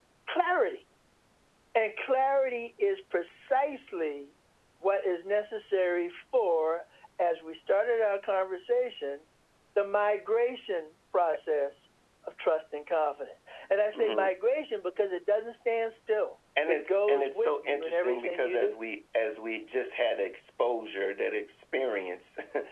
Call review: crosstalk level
present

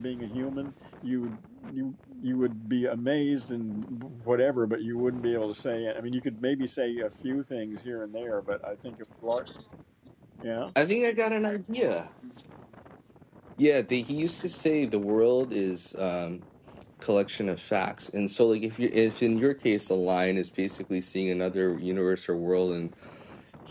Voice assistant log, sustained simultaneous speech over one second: none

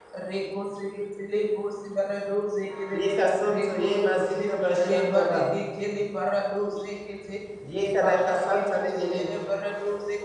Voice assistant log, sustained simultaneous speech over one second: present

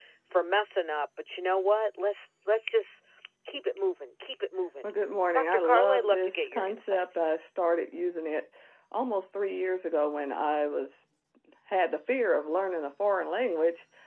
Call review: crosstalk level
present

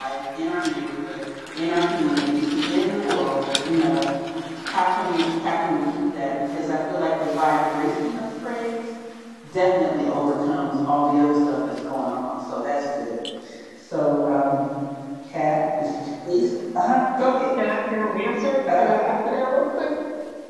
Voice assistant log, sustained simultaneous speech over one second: none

